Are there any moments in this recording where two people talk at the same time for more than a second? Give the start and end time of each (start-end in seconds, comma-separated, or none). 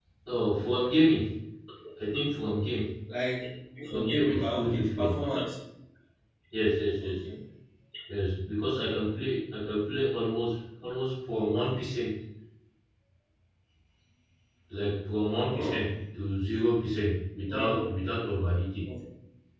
3.9-5.2